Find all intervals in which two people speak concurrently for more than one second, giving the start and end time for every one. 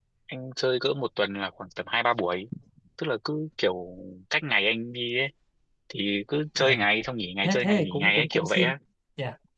7.4-8.7

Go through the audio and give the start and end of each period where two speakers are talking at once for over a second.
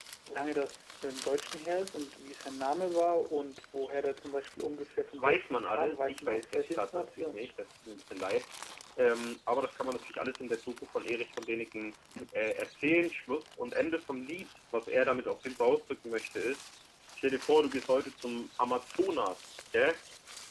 5.2-7.4

